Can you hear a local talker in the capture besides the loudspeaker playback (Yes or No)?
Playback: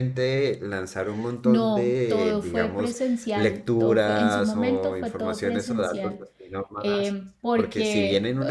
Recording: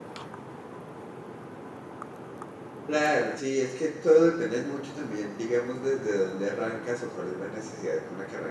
Yes